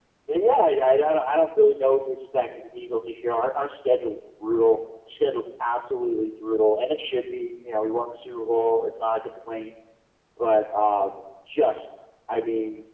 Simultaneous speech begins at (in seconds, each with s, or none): none